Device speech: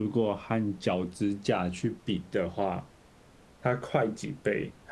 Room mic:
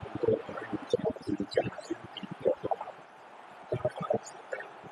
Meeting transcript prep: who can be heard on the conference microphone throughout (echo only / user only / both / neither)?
echo only